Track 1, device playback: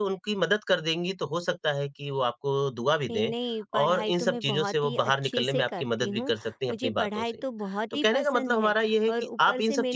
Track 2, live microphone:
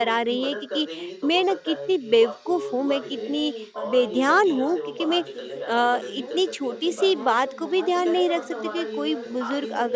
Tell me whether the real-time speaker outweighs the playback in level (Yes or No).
Yes